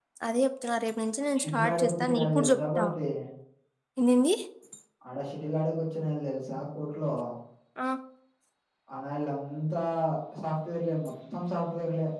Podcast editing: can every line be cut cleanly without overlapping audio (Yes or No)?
No